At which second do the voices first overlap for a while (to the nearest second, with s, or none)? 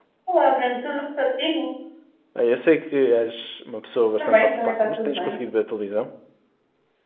4 s